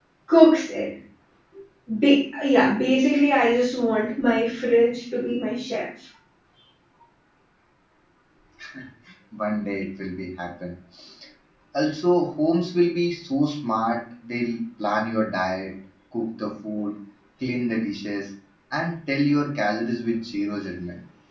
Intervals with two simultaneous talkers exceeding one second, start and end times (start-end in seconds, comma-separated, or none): none